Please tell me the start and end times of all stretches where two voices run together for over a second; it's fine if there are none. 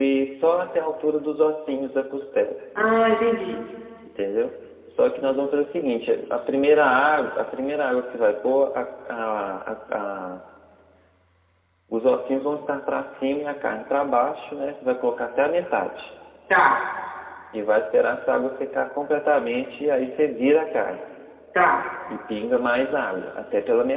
none

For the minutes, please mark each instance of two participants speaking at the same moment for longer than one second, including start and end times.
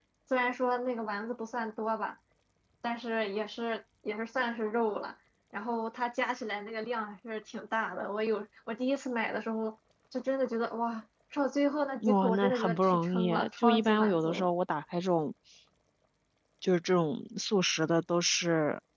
12.0-14.5

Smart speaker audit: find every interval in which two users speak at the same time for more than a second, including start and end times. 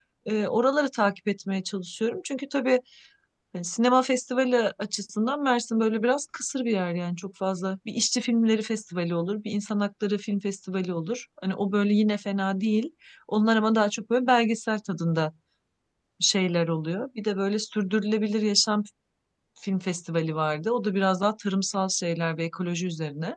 none

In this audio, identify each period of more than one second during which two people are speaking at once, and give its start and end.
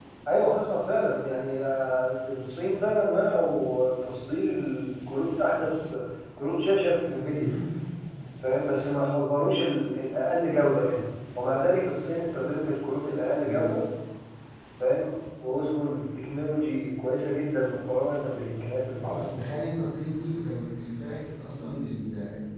none

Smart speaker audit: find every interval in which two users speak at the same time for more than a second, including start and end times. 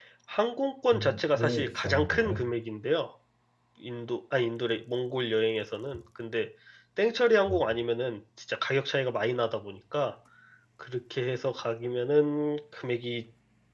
0.9-2.5

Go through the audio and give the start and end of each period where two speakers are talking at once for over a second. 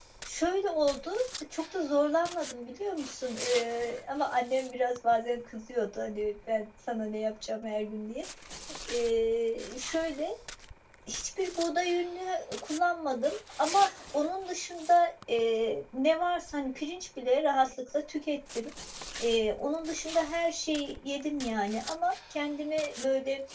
none

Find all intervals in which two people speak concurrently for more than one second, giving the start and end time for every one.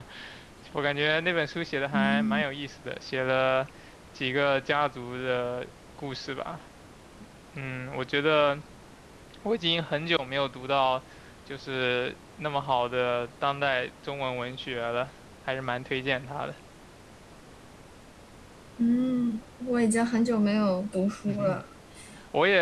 none

